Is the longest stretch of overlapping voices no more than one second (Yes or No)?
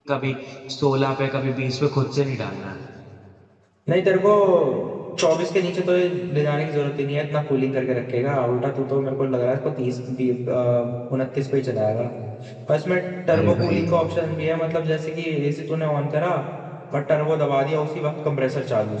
Yes